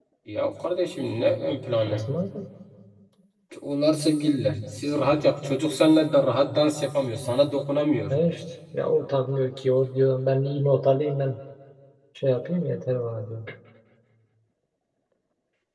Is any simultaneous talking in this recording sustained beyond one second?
No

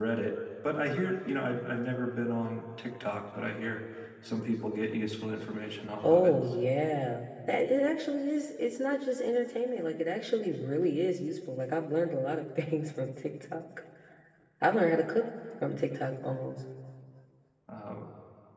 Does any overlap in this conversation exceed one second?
No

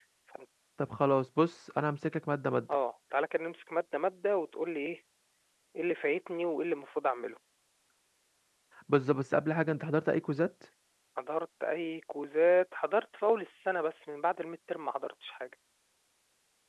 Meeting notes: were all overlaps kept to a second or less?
Yes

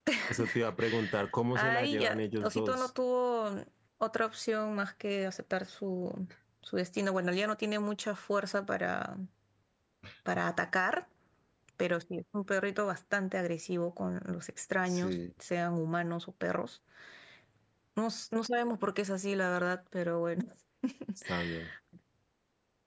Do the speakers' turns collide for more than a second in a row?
Yes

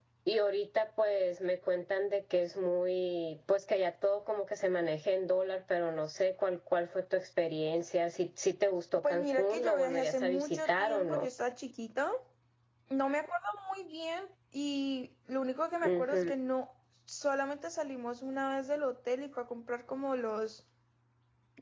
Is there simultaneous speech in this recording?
Yes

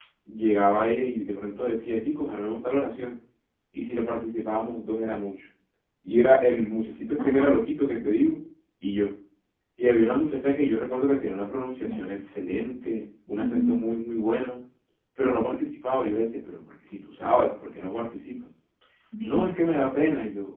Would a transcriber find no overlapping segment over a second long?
Yes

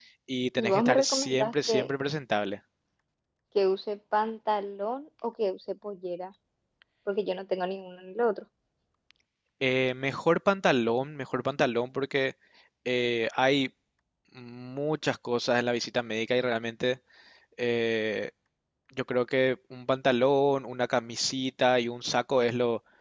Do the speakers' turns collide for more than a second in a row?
Yes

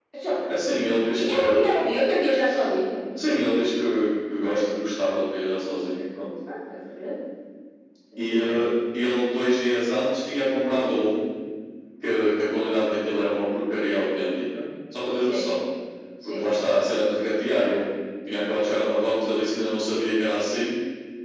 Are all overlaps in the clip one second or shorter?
Yes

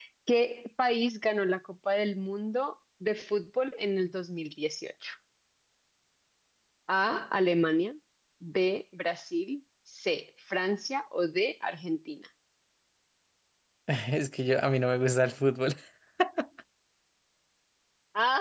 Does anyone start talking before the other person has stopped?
No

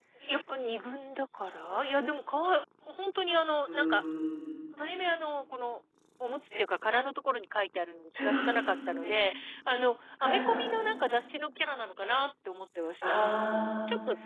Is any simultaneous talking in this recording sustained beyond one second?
No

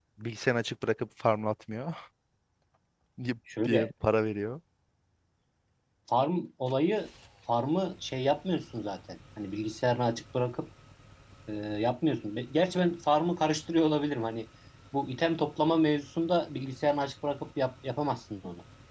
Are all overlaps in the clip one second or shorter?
Yes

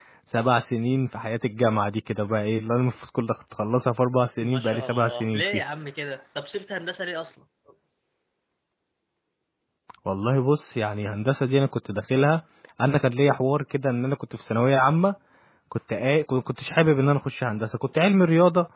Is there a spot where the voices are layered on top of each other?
Yes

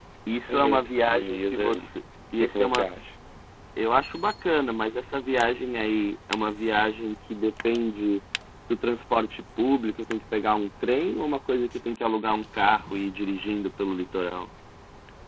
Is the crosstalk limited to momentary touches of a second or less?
No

